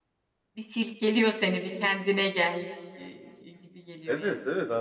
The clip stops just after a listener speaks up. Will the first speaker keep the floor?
No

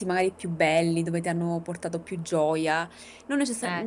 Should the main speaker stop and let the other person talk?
No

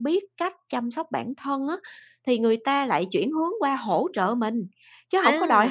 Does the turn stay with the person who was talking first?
No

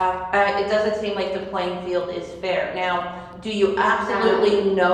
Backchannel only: Yes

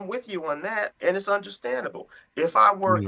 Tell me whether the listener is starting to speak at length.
No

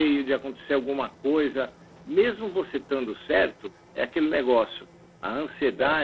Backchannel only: Yes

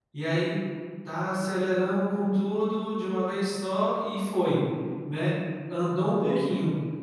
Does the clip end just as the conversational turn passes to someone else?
No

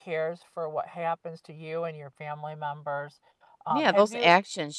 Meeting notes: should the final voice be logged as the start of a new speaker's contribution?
Yes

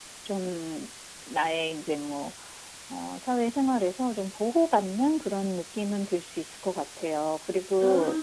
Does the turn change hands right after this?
No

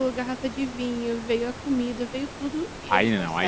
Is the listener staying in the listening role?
No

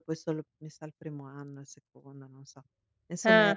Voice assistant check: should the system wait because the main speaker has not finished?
Yes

